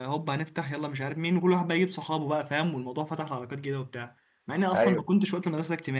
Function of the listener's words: listening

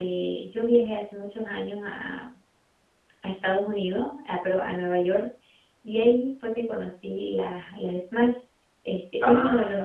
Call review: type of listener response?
listening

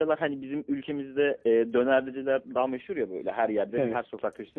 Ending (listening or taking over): listening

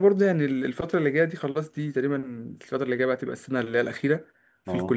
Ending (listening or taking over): listening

